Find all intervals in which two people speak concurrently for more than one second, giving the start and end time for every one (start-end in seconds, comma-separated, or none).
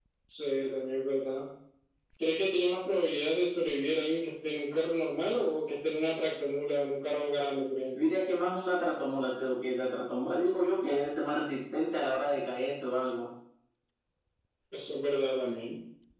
none